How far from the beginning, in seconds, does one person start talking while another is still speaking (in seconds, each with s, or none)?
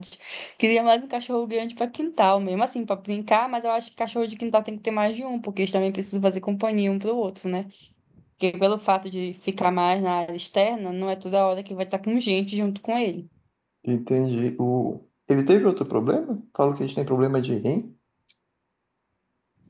none